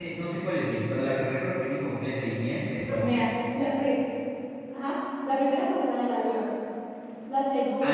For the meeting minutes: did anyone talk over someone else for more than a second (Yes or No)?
No